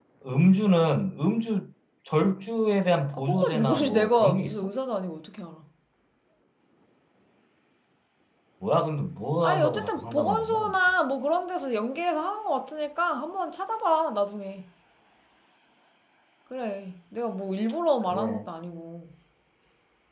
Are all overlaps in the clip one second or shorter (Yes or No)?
No